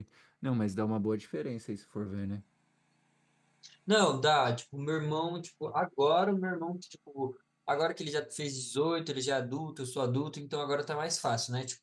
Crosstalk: none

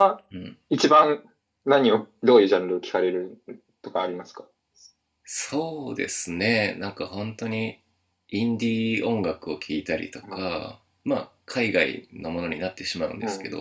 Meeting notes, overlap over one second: none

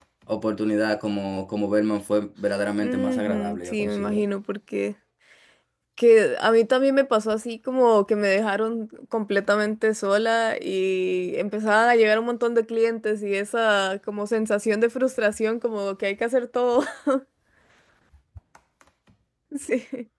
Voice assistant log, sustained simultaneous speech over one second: present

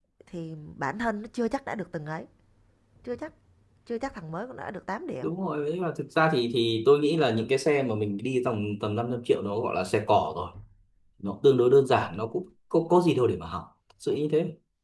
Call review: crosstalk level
none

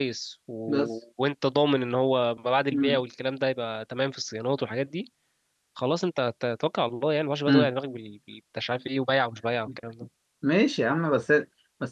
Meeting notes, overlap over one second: none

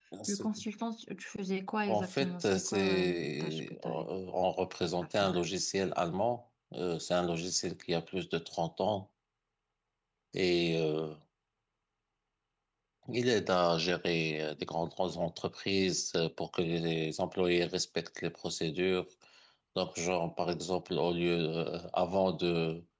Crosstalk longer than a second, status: present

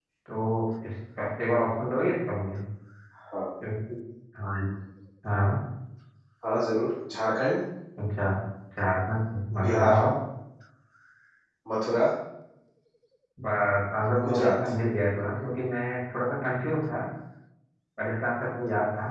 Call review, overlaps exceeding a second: none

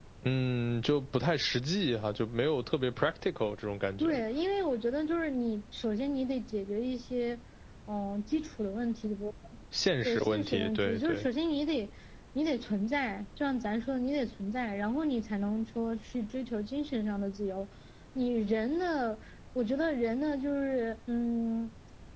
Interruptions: present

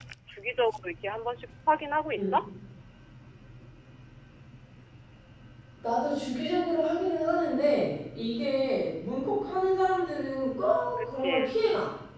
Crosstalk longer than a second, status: none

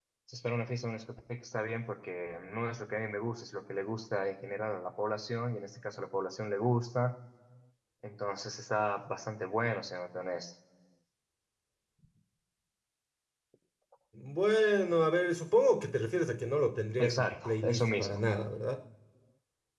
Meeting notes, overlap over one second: present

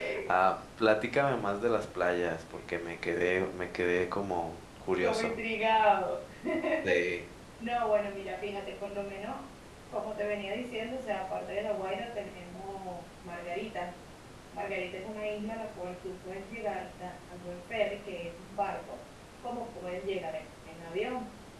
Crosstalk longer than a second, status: none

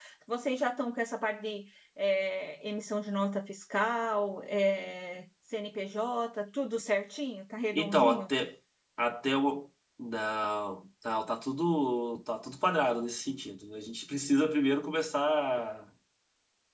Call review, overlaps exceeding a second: none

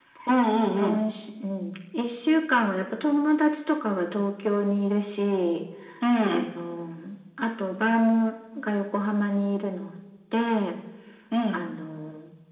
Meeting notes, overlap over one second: none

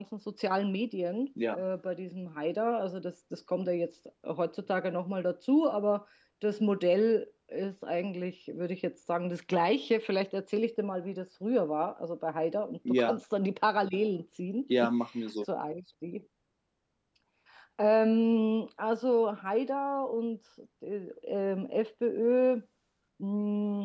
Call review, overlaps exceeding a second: none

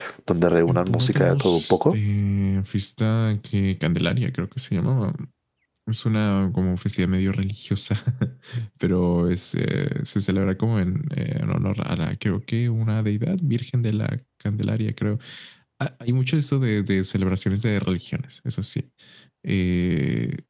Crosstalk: present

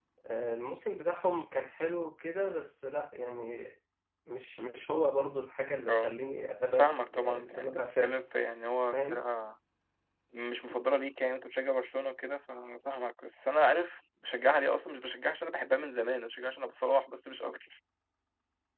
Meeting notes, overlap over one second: present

